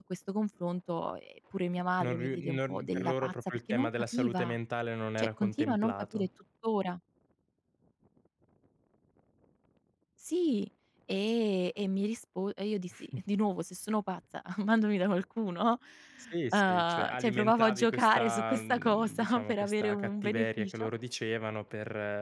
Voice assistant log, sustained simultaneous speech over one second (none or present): present